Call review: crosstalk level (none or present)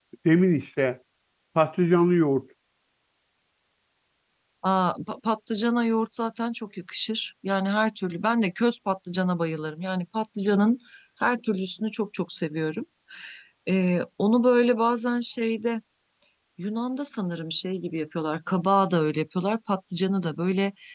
none